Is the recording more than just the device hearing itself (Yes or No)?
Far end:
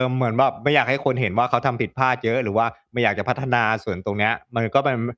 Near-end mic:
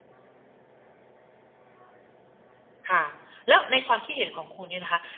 Yes